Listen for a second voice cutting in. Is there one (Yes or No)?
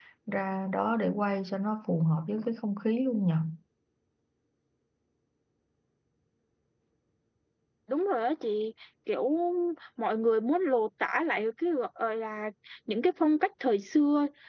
No